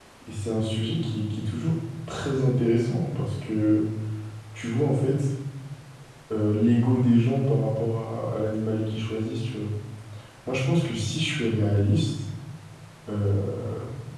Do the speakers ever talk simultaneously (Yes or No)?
No